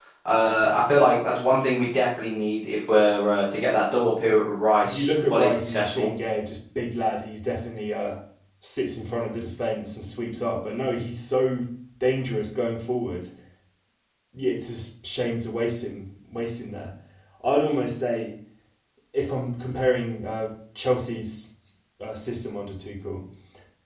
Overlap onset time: 4.8 s

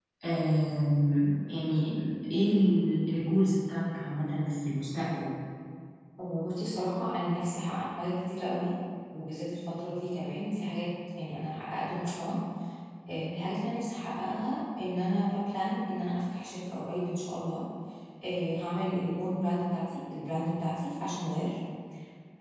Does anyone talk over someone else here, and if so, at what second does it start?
none

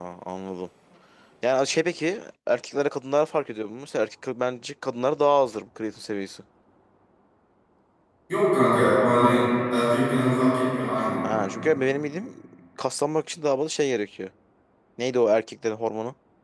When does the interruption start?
none

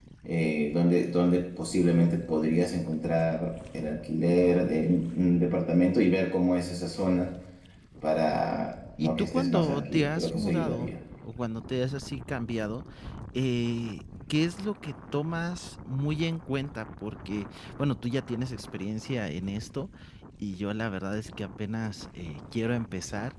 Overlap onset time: 9.0 s

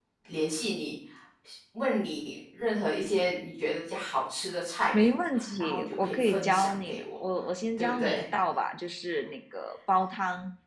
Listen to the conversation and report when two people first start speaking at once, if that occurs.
5.0 s

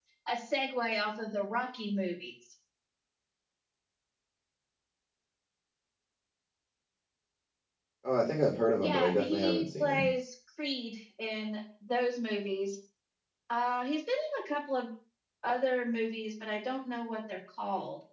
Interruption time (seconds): 8.8 s

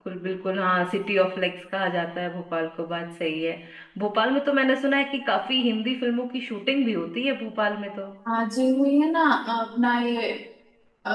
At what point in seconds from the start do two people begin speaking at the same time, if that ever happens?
none

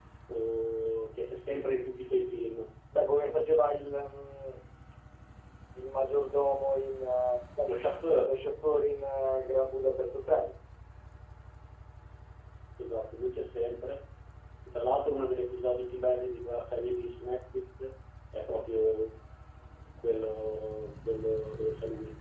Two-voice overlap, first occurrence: none

